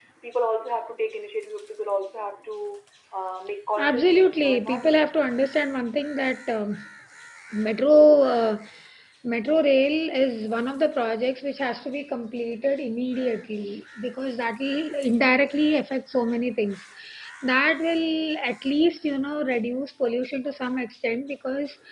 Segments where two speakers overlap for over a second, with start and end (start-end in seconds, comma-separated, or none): 3.8-5.0